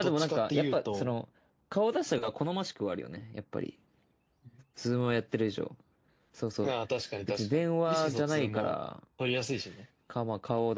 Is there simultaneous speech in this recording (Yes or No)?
Yes